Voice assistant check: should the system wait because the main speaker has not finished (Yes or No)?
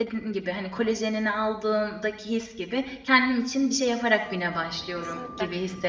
No